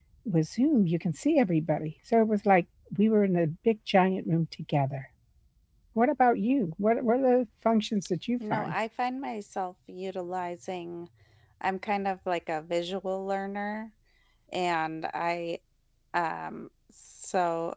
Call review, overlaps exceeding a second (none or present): none